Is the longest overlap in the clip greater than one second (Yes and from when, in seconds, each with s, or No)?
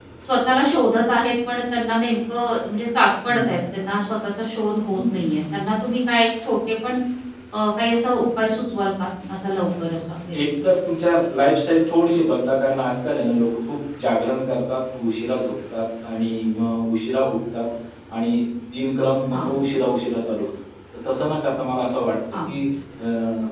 No